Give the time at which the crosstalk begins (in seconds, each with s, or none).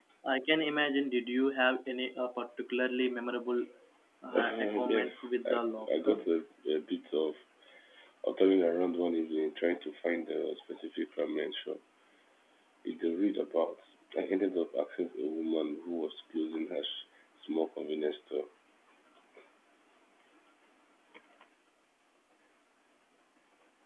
4.4 s